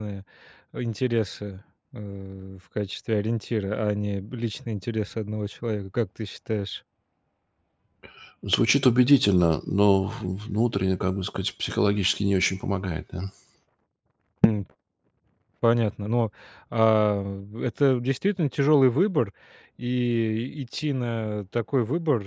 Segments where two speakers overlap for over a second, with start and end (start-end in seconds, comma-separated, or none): none